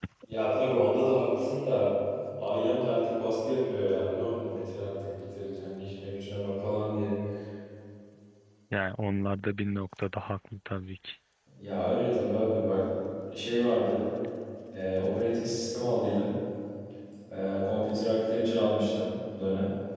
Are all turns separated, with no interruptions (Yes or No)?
Yes